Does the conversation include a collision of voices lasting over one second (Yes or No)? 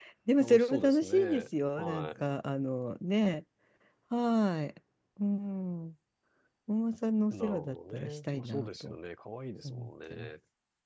Yes